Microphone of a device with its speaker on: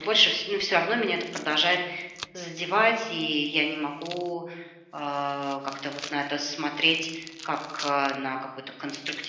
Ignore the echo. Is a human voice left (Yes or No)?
No